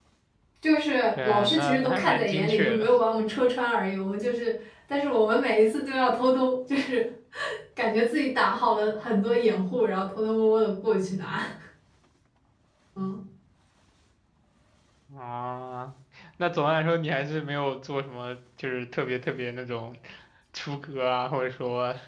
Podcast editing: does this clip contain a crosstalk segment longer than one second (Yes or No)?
Yes